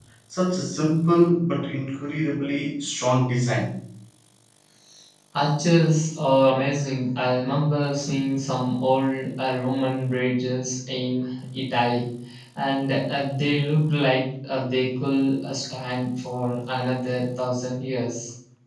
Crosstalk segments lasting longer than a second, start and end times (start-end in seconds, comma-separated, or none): none